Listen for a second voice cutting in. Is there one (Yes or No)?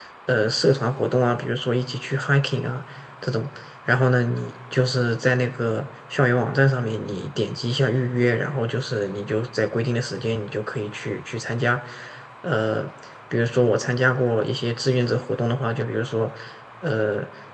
No